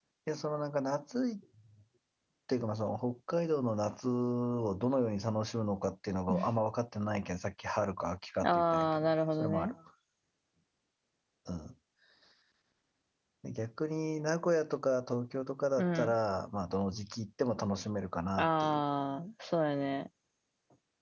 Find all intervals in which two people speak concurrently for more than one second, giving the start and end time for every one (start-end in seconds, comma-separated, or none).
8.4-9.7